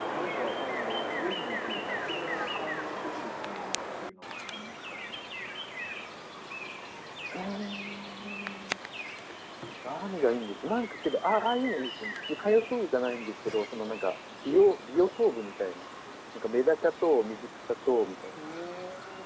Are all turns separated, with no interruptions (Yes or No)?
Yes